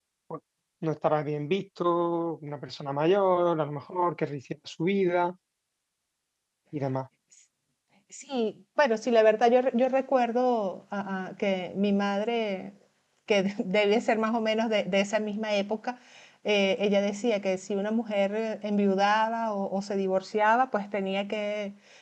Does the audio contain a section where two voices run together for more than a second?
No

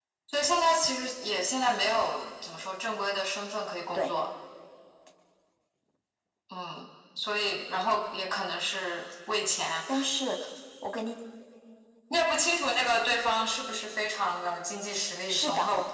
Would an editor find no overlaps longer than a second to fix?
Yes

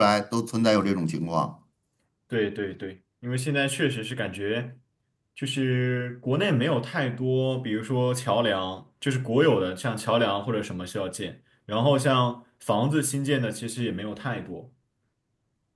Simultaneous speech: No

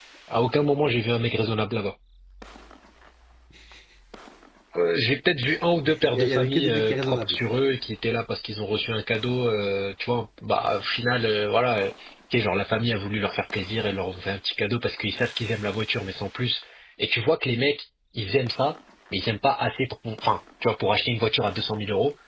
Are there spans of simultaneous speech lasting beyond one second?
Yes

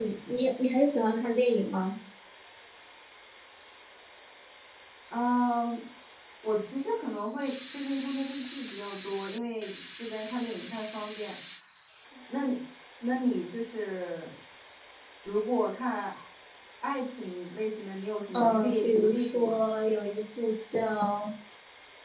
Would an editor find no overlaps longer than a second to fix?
No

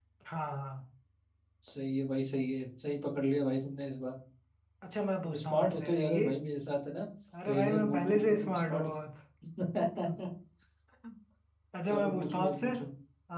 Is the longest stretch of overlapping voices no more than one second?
No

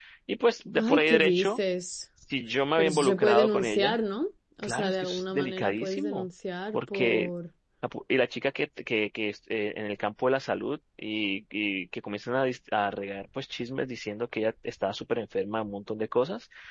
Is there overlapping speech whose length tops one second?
Yes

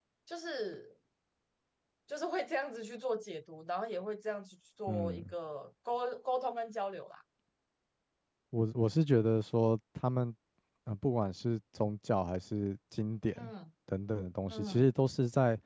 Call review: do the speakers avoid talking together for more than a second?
Yes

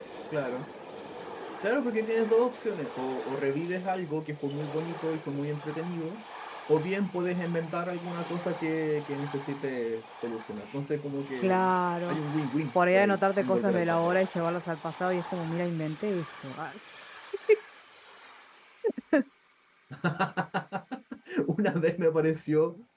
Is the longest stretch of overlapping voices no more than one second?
No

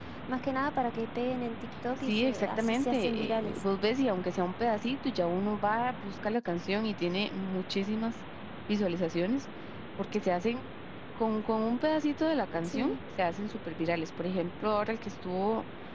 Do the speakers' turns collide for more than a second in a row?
Yes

